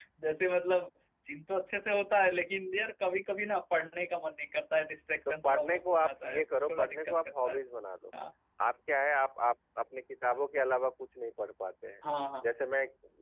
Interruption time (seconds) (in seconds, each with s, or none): 5.3 s